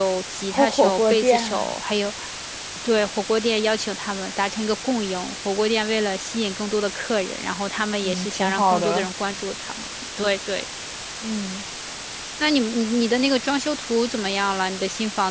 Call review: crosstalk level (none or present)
present